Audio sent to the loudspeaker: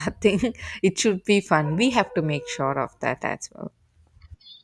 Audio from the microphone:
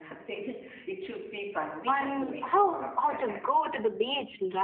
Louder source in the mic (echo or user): user